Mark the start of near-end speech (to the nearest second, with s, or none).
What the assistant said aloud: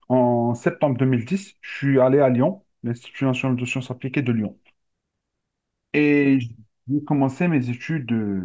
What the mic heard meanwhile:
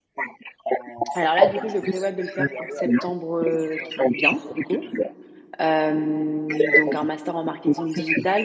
1 s